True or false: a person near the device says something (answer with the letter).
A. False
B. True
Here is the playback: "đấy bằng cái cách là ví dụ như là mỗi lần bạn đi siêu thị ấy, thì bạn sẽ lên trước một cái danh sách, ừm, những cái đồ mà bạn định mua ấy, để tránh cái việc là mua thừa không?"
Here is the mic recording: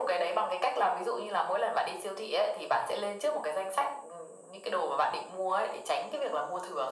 A